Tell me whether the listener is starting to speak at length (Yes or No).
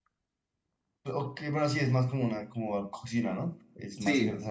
Yes